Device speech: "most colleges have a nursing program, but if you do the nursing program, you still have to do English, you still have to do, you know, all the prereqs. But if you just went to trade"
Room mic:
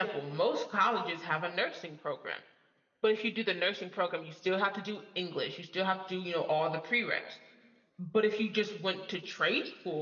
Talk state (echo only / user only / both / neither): echo only